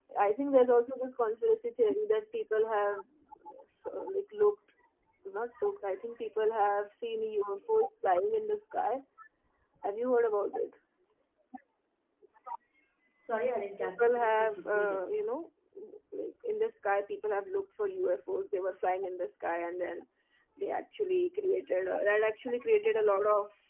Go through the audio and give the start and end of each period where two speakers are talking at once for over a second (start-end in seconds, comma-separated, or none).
13.8-15.0